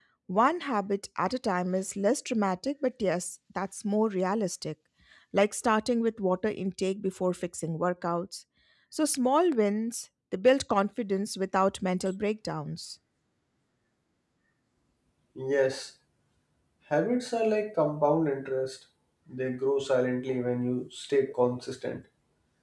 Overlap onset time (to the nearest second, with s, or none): none